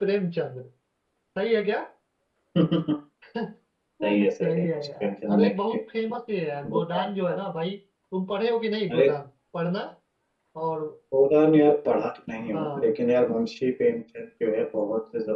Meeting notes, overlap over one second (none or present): present